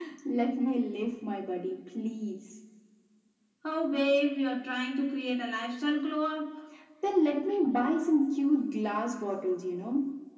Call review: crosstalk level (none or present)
none